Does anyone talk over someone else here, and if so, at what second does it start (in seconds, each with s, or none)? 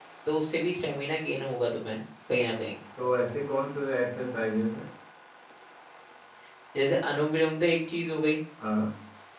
none